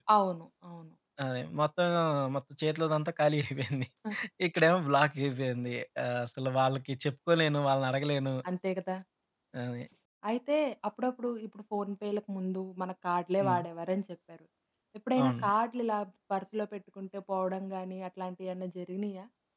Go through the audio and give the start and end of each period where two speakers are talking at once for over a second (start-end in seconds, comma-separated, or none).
none